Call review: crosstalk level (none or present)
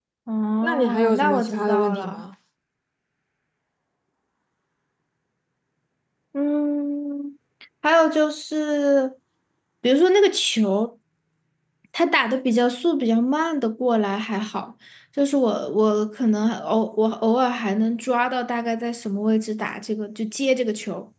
present